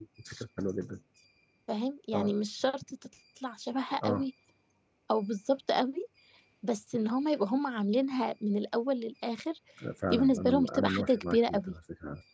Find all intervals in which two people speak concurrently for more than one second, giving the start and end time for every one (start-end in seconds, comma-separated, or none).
10.1-11.7